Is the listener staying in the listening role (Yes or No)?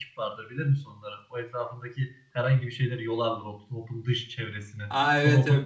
No